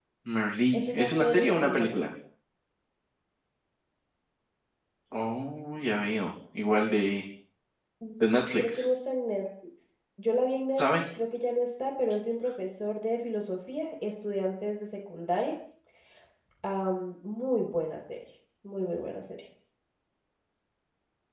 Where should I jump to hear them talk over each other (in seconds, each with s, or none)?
0.7 s